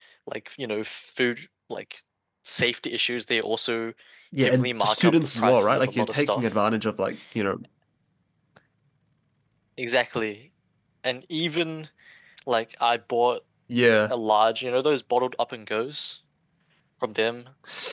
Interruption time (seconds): 4 s

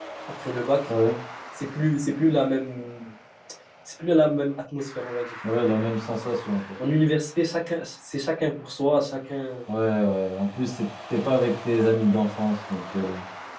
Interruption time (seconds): none

